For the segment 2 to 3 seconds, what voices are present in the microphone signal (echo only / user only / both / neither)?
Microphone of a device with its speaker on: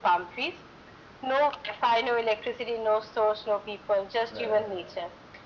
echo only